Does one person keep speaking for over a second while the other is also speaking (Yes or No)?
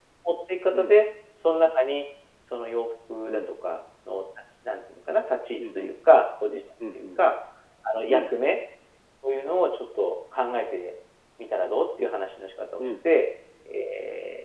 No